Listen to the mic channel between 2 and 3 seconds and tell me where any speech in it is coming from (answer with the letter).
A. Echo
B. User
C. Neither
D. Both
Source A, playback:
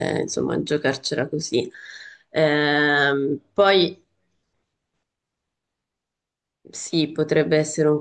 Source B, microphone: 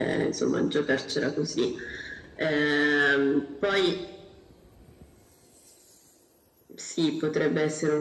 A